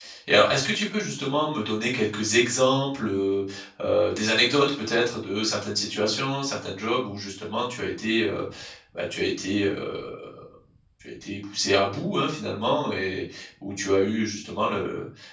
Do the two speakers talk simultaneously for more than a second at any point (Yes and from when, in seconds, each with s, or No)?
No